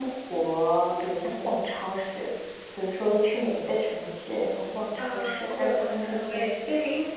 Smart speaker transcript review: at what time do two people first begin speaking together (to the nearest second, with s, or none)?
5 s